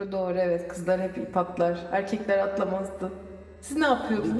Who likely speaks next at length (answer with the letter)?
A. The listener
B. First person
A